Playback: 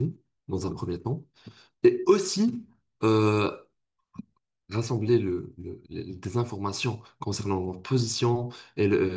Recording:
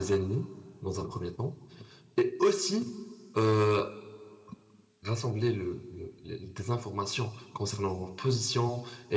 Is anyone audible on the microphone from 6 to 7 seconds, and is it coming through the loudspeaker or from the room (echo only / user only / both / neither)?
echo only